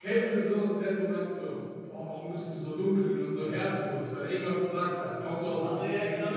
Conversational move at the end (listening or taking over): taking over